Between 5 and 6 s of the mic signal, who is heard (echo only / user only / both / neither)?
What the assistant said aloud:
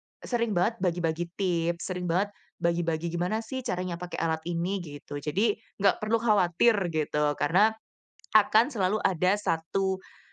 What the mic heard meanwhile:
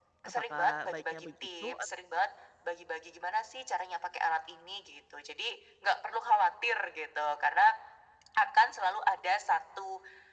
echo only